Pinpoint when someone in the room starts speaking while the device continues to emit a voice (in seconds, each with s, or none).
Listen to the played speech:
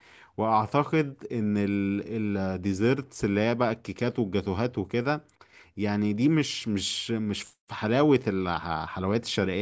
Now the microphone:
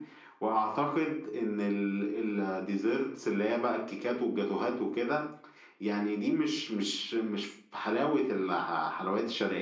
none